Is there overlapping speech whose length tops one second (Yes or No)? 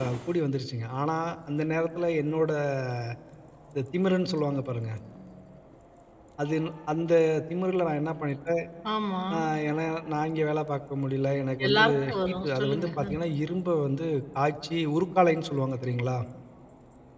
Yes